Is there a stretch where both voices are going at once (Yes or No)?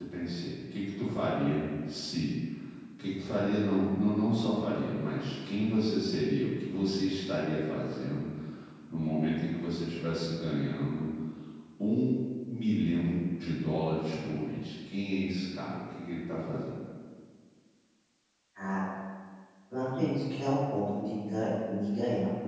No